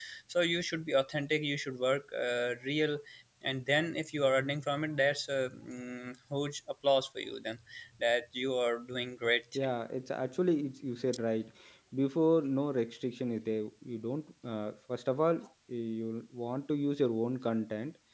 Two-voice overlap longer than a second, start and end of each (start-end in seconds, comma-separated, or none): none